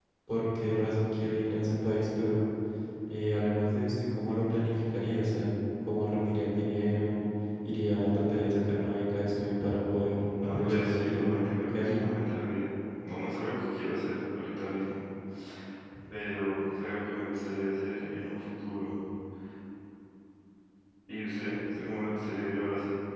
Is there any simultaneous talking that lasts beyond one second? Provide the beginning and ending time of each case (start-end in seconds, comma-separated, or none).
10.4-12.1